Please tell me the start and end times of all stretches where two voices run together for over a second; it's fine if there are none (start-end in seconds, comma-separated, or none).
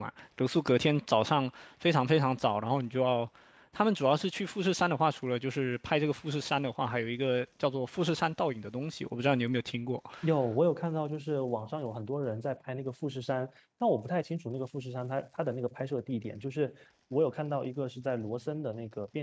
none